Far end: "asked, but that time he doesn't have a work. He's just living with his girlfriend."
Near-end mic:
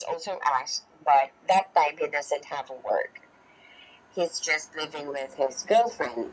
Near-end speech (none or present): none